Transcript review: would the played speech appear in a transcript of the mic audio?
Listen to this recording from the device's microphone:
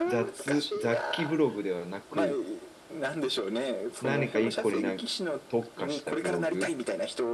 Yes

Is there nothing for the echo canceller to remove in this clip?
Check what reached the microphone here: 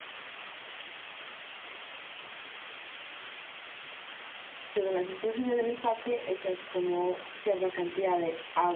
Yes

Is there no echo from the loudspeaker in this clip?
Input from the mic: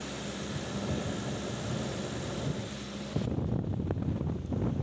Yes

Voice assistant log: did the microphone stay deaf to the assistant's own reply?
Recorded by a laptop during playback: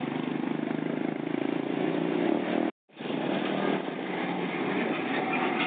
Yes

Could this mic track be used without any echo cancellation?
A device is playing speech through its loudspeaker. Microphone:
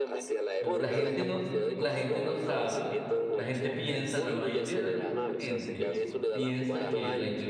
No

